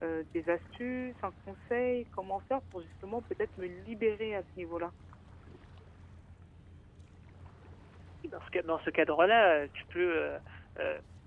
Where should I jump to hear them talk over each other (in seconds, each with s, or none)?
none